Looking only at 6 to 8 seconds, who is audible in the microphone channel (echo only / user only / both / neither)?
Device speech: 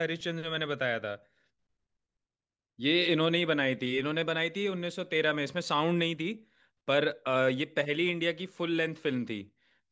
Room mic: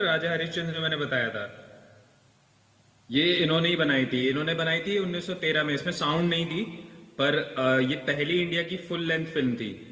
echo only